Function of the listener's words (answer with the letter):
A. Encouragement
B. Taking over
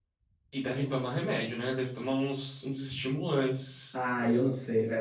B